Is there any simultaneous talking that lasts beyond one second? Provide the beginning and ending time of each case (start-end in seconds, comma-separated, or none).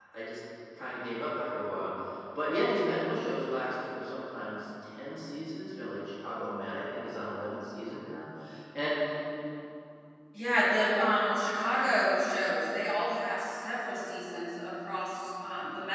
none